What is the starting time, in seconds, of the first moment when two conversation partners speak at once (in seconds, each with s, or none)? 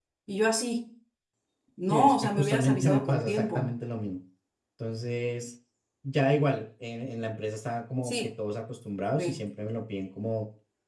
1.9 s